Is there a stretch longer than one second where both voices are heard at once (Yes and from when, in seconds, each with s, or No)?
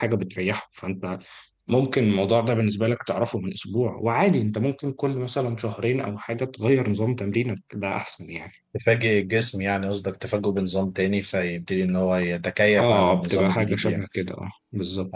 Yes, from 12.7 s